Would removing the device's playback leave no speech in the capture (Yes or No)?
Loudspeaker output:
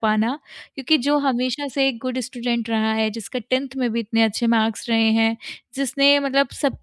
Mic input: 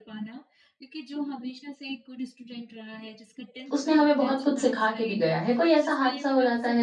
No